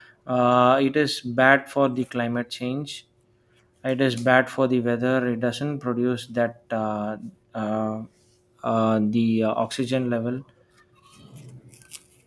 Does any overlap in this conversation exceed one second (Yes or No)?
No